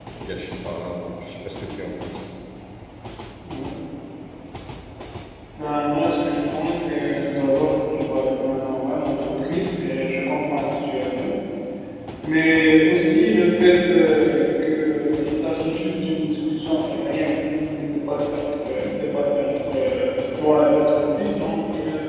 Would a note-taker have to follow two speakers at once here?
No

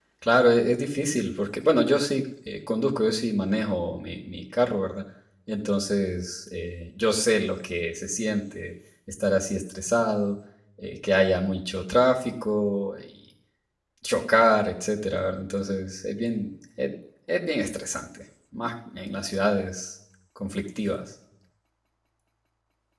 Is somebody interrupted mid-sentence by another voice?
No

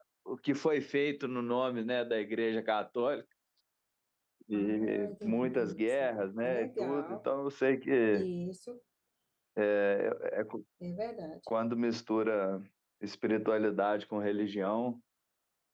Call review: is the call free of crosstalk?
No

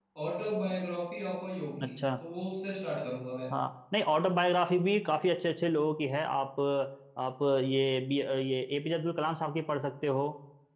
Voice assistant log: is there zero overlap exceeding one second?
Yes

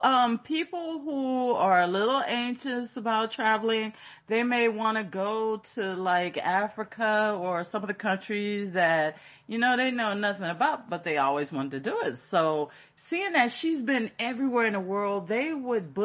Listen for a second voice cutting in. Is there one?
No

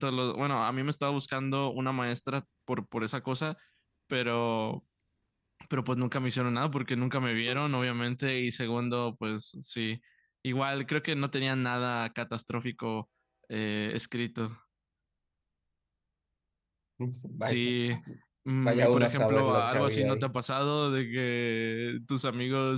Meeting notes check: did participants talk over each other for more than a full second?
Yes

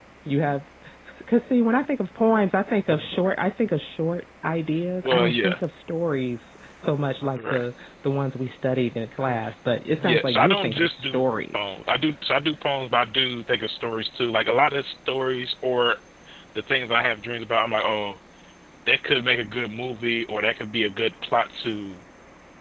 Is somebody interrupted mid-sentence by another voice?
Yes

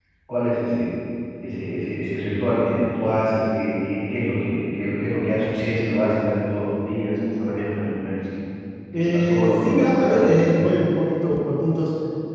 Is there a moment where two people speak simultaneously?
Yes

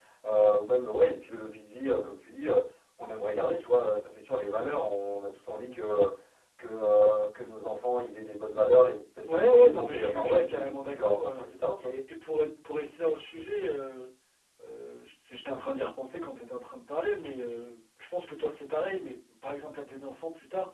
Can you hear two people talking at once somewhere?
Yes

